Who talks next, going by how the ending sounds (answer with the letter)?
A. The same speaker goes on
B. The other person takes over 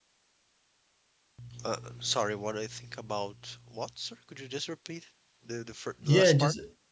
B